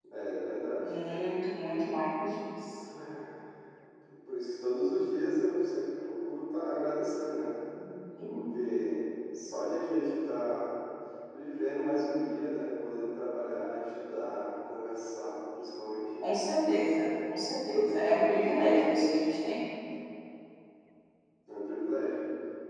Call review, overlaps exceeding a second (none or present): none